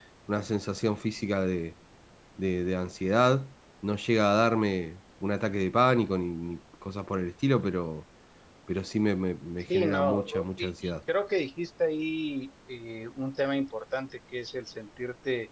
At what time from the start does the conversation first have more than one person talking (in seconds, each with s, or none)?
9.7 s